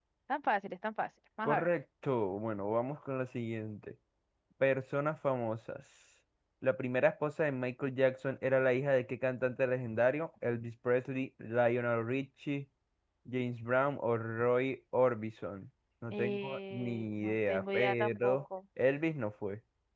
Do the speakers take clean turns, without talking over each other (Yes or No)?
No